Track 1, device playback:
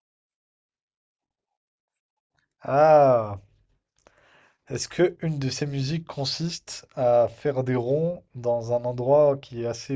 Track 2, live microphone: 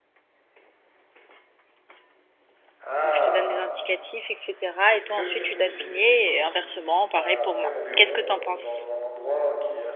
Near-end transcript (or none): Donc je te donne des indicatifs, etc. Et toi ensuite tu dois deviner et inversement, pareil pour moi. Qu'est-ce que t'en penses?